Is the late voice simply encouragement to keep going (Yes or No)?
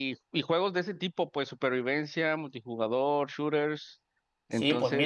No